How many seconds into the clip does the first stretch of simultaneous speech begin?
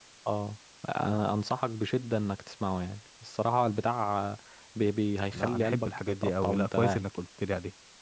5.3 s

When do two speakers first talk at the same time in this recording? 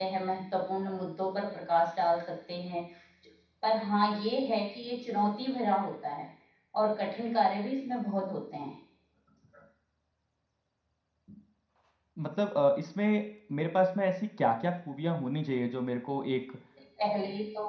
none

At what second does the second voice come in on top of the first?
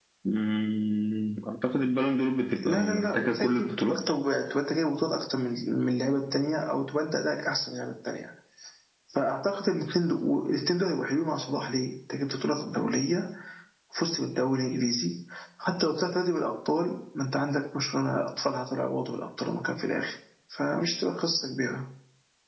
2.6 s

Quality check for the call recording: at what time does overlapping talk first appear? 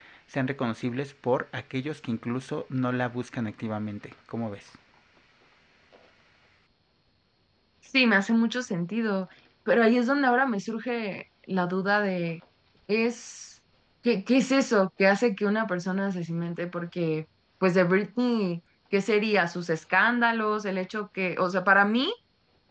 none

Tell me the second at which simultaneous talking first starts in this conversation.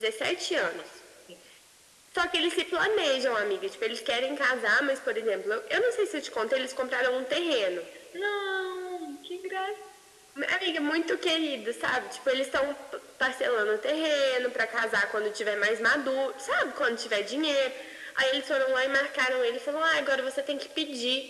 none

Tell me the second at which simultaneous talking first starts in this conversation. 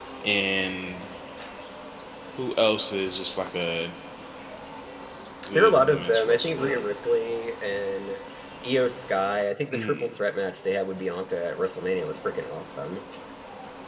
5.5 s

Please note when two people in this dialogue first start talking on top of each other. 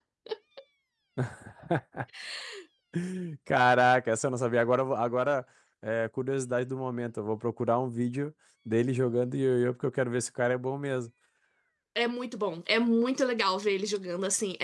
none

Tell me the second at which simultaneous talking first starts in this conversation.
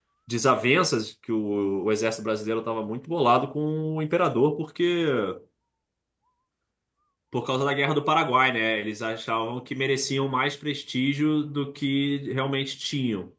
none

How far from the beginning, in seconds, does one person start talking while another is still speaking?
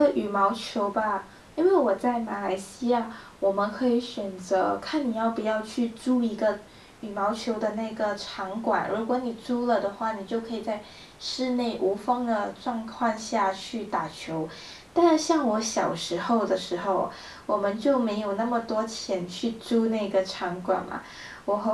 none

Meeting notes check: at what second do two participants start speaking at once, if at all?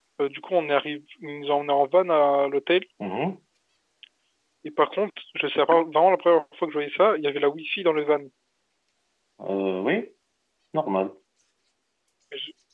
none

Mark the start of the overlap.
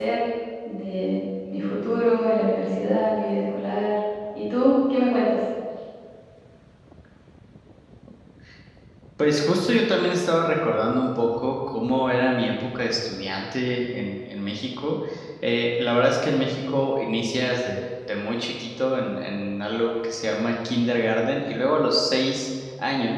none

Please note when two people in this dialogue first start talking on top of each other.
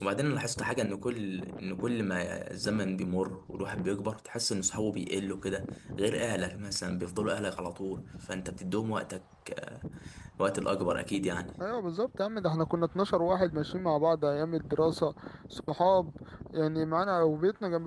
none

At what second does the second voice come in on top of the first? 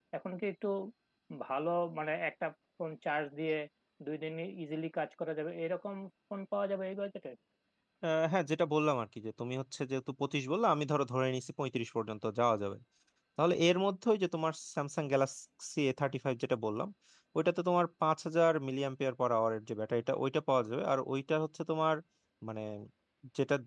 none

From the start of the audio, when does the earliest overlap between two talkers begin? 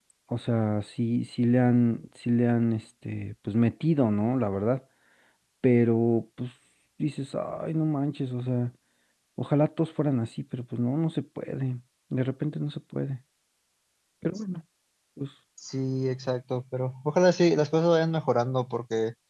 none

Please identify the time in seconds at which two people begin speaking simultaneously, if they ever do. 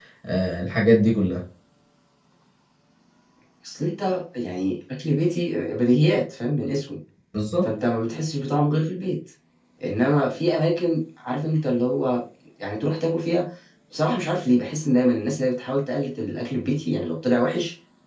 none

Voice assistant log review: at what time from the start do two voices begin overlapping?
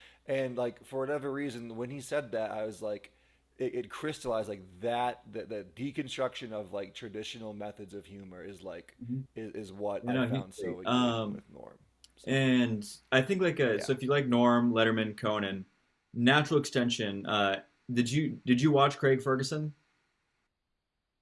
10.1 s

